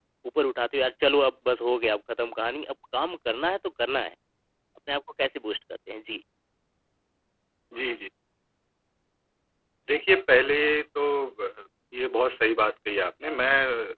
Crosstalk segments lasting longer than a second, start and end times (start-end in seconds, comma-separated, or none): none